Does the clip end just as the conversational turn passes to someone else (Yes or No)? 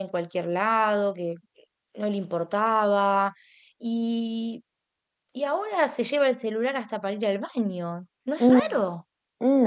Yes